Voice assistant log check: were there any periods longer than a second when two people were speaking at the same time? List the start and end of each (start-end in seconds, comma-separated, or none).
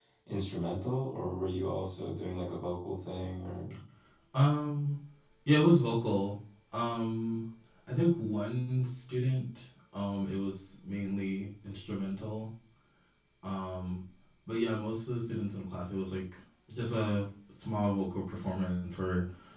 none